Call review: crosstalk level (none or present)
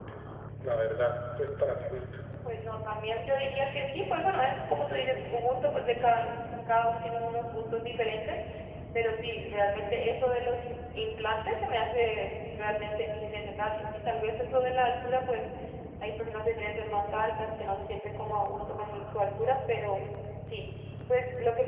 none